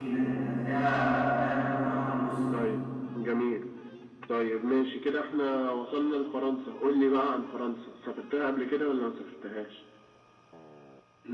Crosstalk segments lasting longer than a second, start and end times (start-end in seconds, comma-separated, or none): none